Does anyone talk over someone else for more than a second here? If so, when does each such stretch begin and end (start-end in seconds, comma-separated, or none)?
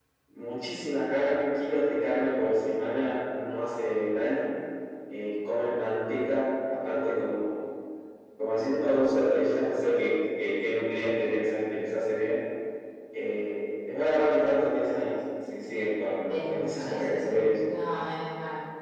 16.3-17.5